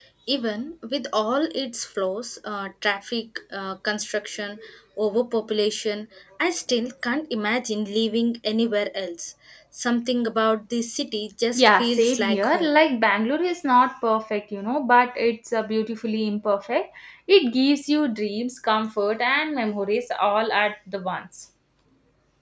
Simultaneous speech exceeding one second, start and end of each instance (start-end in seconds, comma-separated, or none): 11.6-12.8